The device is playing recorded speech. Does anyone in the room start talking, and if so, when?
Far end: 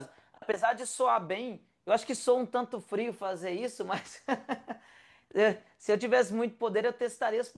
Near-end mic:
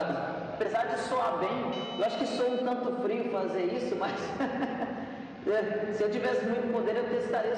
none

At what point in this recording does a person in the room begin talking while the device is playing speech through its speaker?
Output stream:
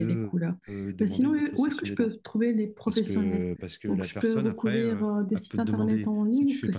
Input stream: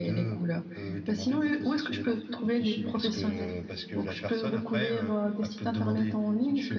2 s

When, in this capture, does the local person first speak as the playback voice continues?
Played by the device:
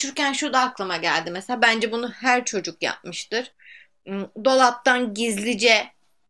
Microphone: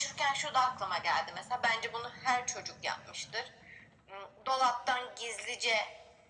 none

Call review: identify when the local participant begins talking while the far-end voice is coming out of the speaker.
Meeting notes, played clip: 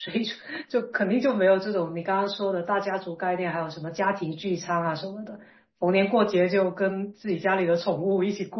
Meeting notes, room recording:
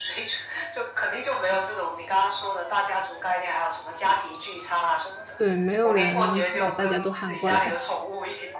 5 s

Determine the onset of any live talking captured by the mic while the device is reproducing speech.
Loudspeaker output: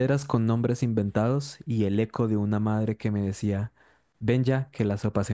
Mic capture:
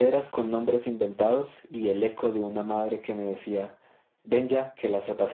none

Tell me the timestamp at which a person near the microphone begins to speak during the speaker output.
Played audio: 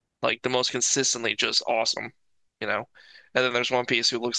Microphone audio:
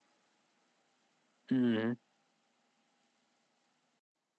2 s

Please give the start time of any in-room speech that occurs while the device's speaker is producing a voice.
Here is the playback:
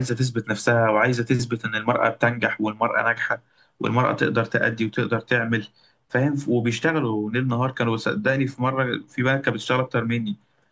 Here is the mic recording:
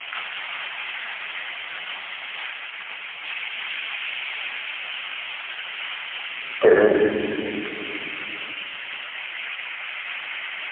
6 s

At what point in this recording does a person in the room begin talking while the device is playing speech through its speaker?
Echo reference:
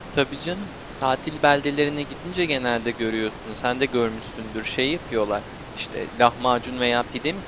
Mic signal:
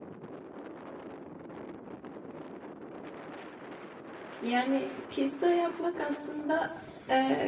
4 s

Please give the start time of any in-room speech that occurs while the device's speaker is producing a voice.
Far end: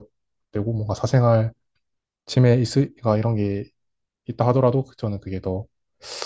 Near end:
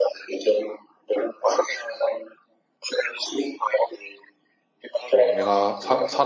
5 s

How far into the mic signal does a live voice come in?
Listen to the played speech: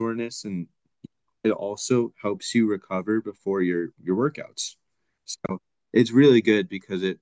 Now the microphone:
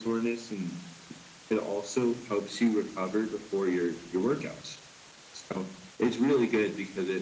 none

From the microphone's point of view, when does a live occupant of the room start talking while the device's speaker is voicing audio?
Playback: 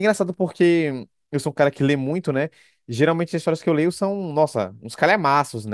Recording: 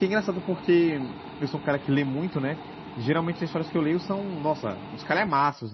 none

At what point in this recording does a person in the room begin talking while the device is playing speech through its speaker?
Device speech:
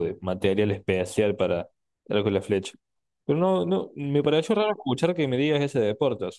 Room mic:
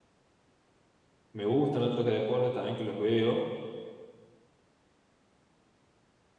1 s

